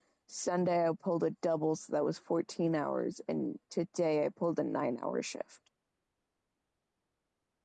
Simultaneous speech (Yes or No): No